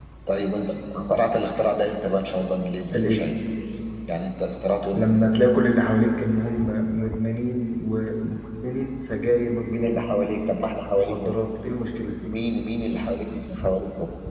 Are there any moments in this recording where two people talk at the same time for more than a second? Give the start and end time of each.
none

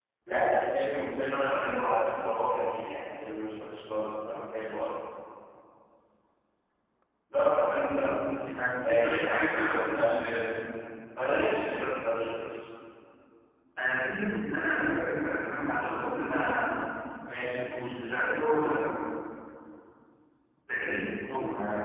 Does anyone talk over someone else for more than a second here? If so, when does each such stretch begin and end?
8.8-10.2

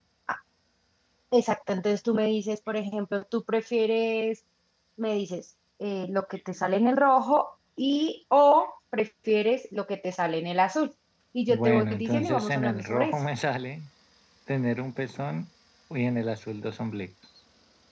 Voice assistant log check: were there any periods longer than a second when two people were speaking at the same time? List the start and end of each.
11.5-13.2

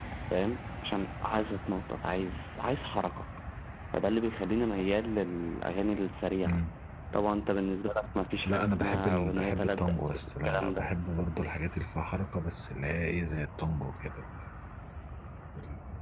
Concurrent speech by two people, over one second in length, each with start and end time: 8.4-10.9

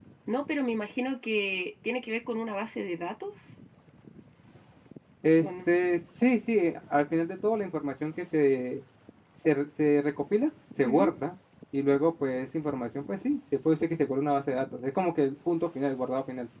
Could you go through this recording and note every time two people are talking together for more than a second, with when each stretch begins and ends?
none

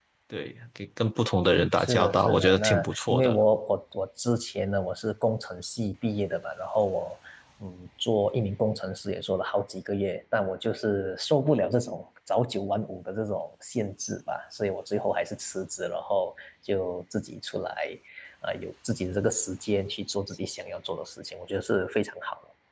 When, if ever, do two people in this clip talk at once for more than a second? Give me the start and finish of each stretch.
1.8-3.4

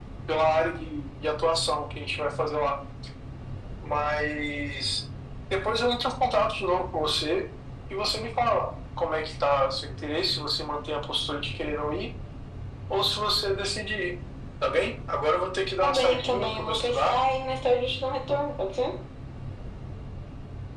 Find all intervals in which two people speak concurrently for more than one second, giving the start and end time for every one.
15.8-17.1

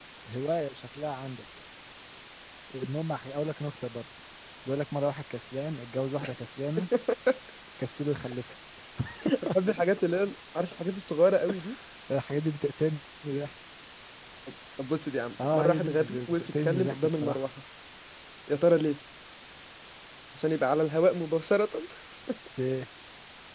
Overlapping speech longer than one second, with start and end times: 15.4-17.4

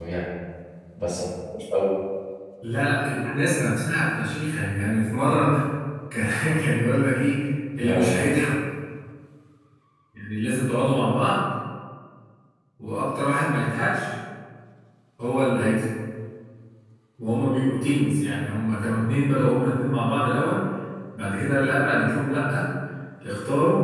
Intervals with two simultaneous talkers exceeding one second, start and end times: none

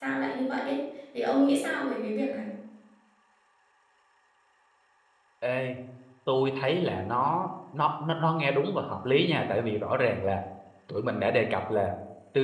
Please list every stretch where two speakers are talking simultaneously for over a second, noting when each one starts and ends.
none

